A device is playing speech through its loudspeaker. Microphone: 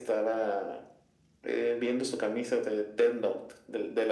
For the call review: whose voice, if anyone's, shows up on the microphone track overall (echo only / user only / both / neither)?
echo only